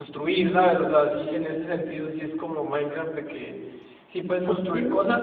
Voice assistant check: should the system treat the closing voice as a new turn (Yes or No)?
No